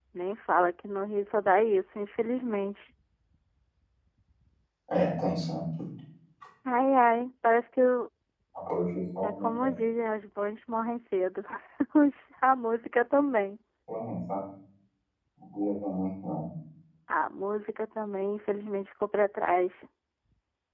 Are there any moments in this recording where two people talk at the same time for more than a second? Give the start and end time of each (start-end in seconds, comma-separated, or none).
none